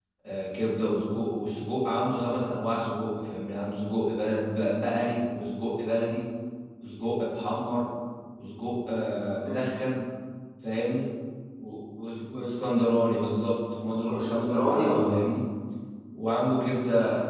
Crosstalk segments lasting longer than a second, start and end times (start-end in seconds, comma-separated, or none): 13.9-15.2